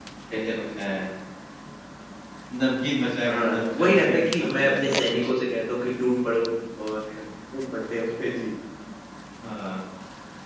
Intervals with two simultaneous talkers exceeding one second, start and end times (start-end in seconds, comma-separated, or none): 3.2-5.3